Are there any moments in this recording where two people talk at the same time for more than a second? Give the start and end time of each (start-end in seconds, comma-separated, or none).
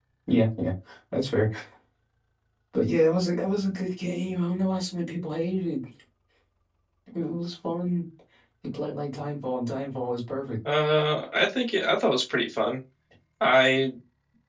none